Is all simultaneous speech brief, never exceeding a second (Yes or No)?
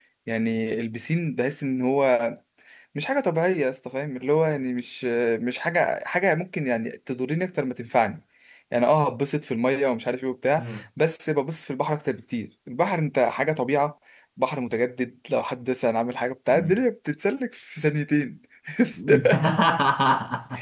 Yes